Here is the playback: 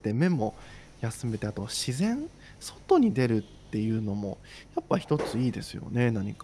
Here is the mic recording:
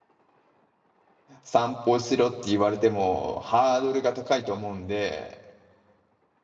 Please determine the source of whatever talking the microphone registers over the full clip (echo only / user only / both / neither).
user only